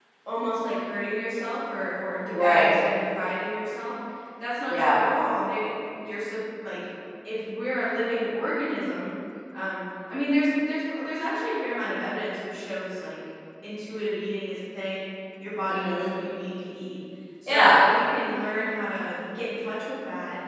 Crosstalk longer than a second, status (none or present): none